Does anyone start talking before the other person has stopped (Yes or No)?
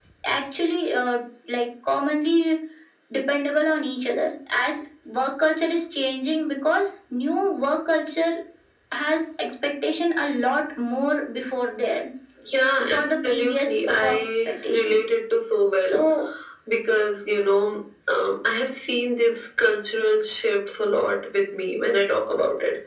Yes